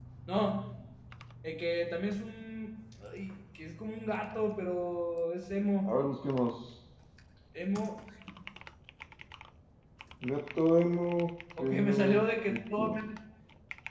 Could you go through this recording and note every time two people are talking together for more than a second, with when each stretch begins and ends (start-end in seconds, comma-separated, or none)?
11.6-13.0